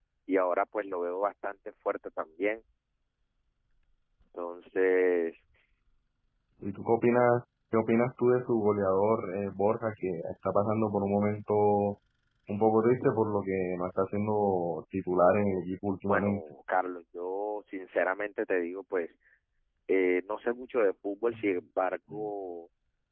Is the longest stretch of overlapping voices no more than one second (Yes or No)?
Yes